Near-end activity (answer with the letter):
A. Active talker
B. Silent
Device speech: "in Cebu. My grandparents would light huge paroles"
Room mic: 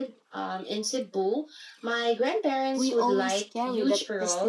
A